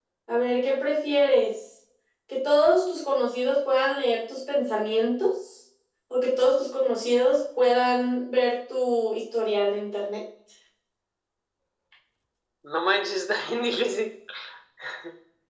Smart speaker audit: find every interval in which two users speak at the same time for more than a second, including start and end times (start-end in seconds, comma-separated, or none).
none